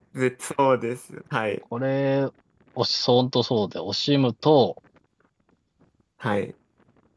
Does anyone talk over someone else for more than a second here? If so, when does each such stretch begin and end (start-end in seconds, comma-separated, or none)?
none